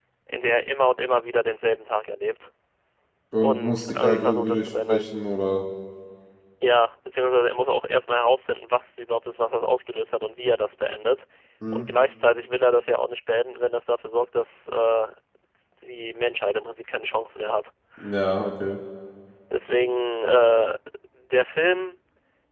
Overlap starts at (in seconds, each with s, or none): 3.4 s